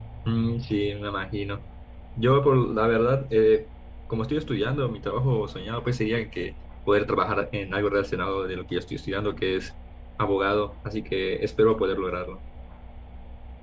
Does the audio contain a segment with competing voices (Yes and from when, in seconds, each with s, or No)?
No